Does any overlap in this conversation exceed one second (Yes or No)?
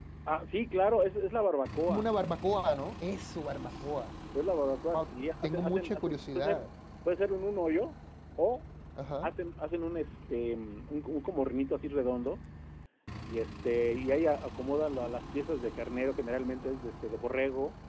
Yes